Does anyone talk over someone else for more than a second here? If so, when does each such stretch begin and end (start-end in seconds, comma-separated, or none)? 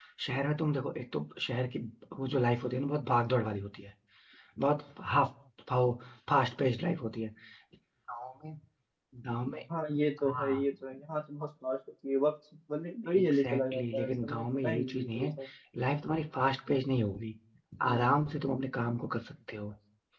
13.1-15.3